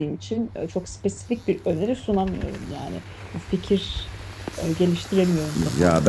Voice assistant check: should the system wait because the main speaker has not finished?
No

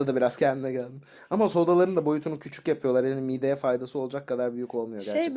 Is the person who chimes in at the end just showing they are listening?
No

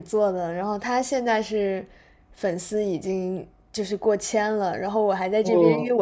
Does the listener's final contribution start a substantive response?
No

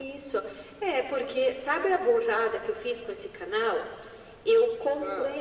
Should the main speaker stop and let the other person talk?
No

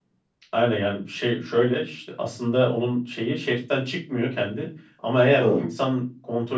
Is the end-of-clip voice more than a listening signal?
No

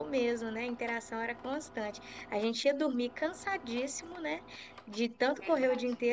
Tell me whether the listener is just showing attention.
Yes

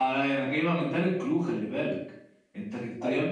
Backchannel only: Yes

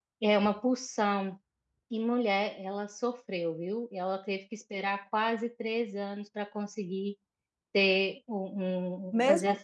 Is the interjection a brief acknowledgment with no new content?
No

